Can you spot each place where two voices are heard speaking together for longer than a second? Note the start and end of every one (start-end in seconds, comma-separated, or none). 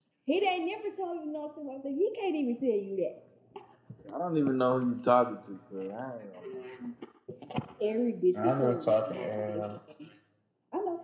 8.4-9.8